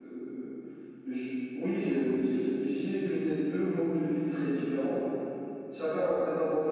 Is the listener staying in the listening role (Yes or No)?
Yes